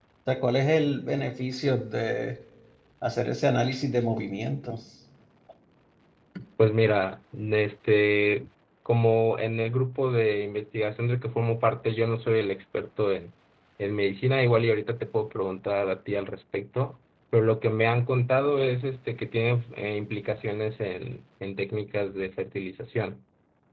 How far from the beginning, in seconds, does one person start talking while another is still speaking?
none

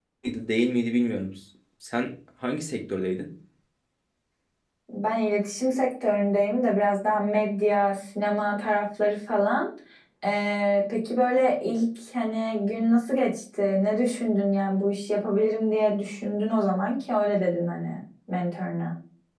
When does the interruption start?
none

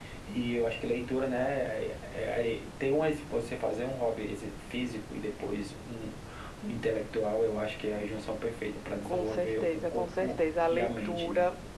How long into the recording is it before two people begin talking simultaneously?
9 s

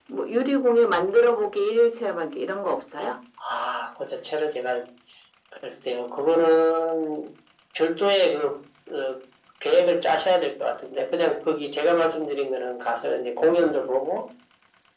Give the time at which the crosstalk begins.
none

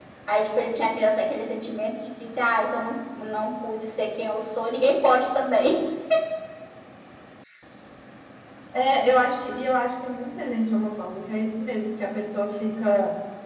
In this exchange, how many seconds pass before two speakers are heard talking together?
none

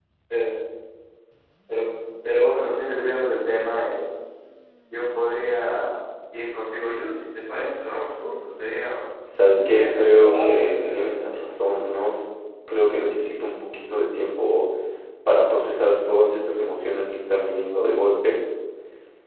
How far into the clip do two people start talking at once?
10 s

